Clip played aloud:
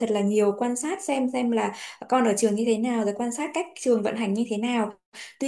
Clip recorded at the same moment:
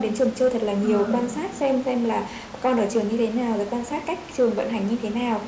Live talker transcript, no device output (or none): ừm,